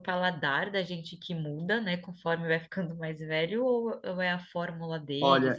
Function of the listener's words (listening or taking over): taking over